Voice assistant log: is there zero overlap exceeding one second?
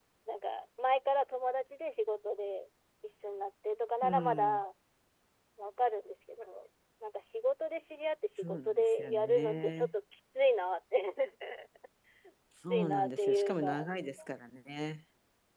No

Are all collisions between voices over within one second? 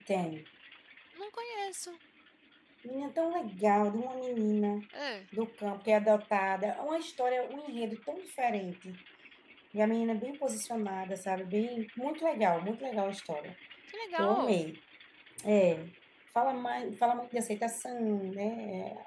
Yes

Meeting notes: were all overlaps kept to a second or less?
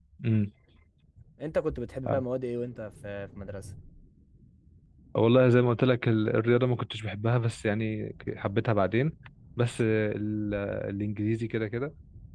Yes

